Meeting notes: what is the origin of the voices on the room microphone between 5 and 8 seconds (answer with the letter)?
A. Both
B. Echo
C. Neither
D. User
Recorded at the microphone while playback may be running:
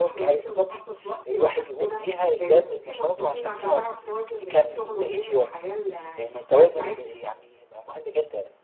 A